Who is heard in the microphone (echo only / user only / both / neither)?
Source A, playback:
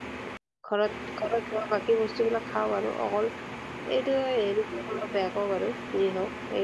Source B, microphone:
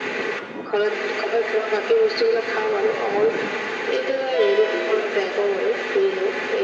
echo only